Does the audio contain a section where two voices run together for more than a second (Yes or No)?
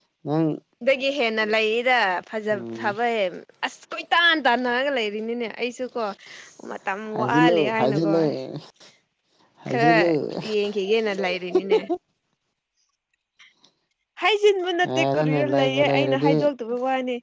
Yes